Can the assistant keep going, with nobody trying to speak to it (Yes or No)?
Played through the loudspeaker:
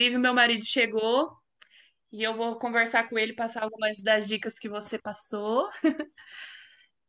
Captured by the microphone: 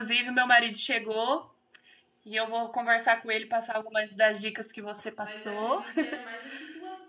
No